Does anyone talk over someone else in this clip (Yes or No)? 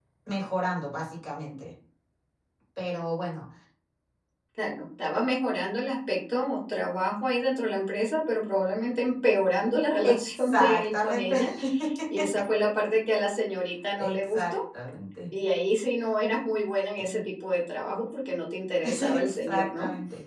Yes